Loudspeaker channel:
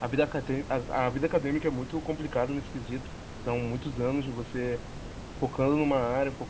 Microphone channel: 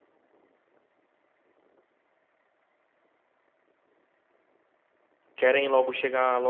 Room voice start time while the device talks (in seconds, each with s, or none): 5.3 s